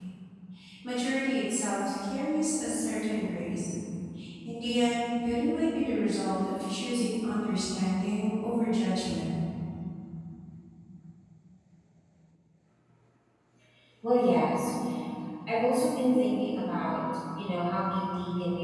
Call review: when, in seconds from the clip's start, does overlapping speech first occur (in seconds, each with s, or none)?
none